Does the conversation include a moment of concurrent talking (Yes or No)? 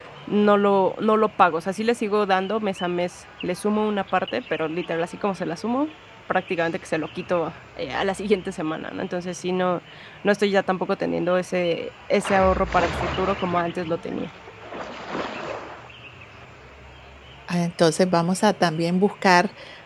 No